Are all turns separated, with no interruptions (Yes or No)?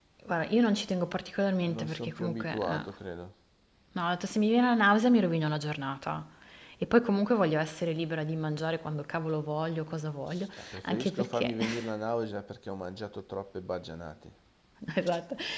No